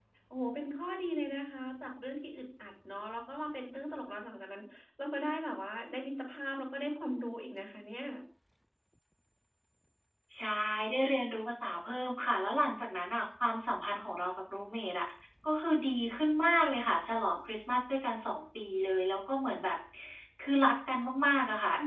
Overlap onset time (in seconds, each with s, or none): none